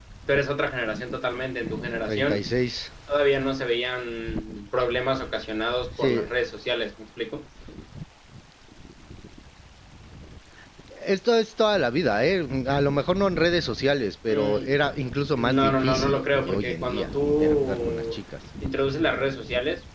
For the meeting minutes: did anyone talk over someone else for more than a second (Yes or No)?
Yes